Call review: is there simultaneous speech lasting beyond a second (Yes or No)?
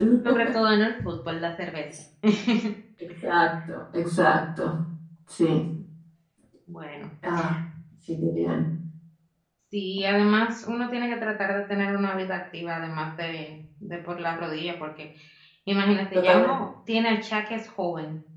No